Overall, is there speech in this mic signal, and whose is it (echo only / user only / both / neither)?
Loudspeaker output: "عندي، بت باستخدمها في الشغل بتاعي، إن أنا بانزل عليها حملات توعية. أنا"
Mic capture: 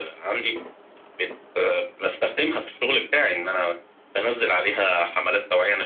echo only